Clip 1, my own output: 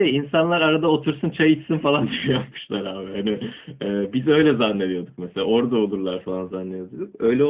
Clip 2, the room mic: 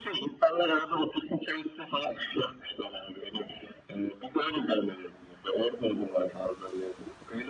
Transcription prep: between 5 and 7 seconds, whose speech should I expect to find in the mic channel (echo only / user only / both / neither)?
echo only